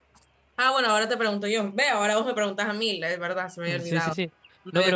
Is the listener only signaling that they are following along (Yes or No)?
No